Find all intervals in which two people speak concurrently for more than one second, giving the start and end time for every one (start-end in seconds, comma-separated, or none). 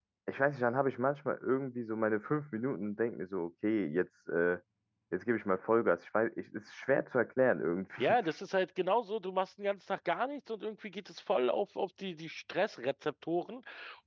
none